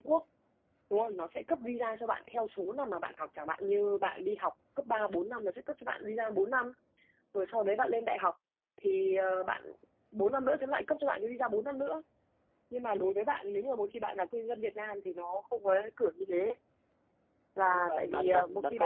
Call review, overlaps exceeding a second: present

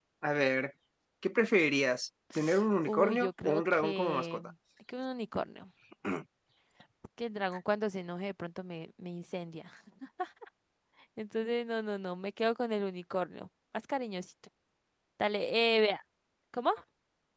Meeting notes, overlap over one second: present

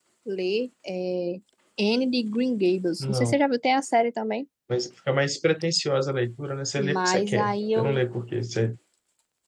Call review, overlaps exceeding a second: present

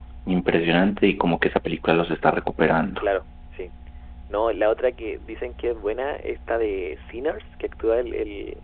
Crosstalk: none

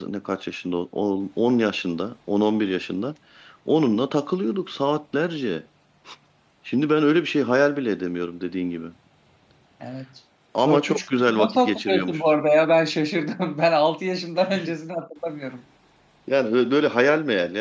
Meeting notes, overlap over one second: present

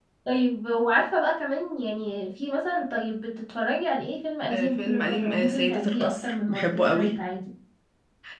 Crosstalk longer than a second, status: present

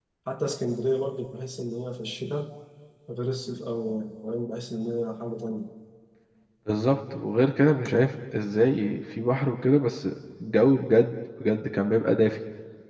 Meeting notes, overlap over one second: none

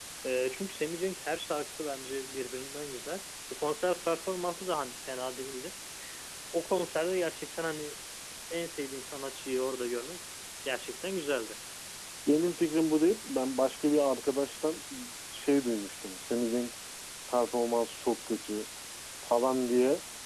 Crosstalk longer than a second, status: none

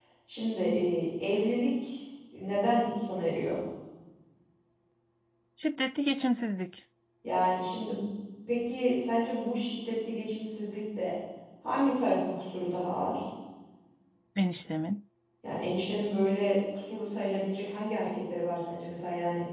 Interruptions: none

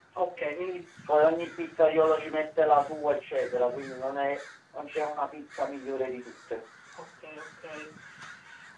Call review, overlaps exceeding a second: none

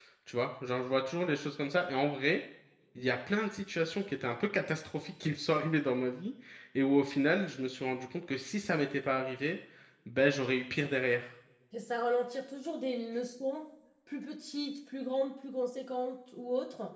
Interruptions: none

